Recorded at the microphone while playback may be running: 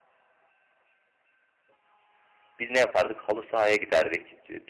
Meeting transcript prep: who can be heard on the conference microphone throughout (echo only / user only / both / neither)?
user only